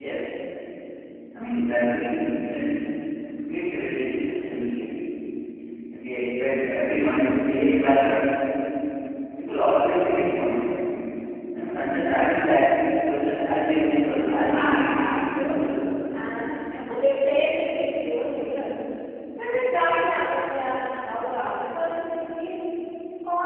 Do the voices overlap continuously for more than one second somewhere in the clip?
Yes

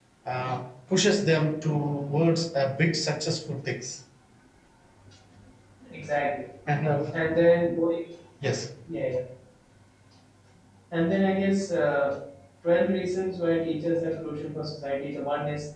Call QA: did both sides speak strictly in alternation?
Yes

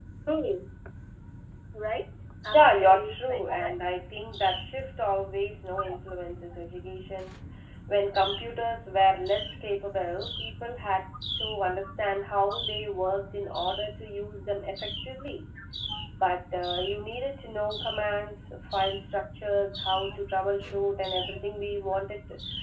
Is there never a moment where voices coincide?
No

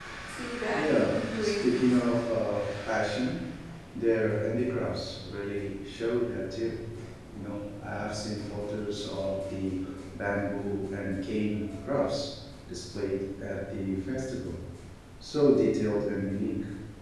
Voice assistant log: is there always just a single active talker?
No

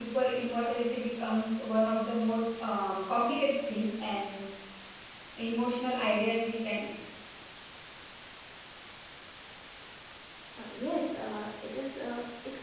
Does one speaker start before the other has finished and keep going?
No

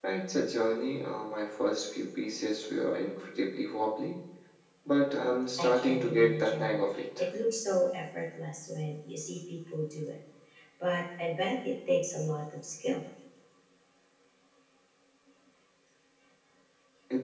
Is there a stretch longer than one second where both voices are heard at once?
Yes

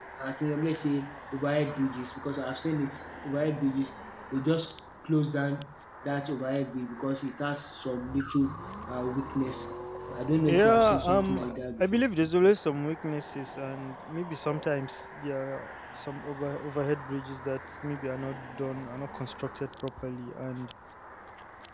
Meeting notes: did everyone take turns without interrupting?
No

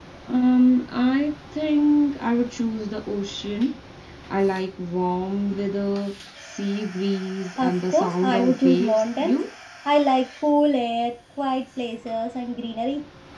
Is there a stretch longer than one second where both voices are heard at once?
Yes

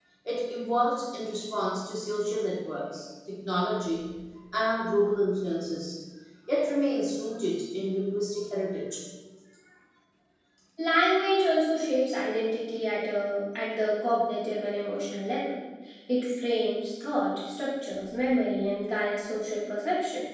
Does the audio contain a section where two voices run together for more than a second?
No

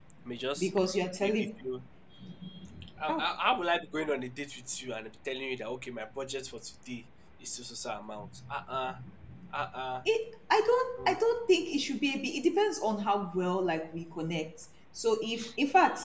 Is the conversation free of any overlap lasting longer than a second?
Yes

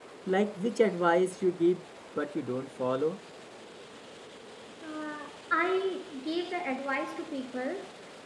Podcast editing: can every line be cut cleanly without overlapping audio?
Yes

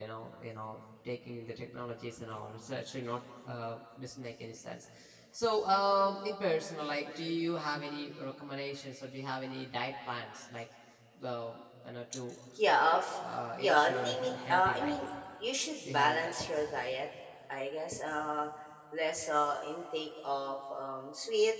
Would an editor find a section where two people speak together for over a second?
Yes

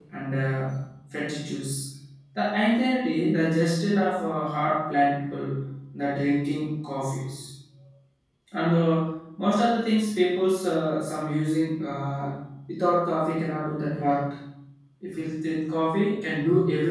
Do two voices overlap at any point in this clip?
No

